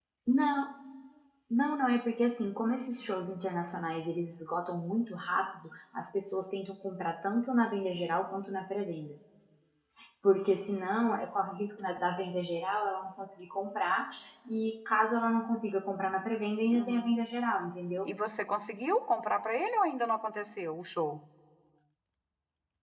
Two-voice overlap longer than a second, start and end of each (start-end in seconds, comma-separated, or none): none